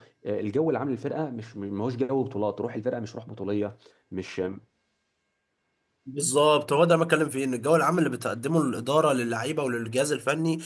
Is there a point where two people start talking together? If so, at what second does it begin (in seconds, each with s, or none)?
none